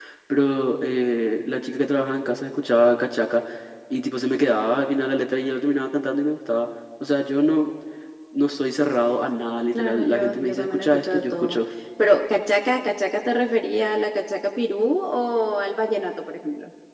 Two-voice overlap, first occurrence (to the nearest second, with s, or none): 10 s